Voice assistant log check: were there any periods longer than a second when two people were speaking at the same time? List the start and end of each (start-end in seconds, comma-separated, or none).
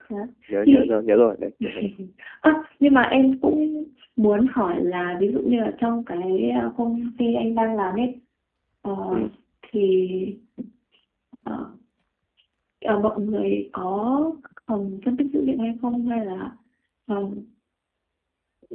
none